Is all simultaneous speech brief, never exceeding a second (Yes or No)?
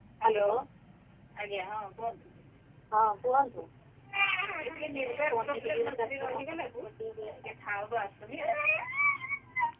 No